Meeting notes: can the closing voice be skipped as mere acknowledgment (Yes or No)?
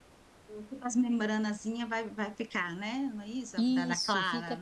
No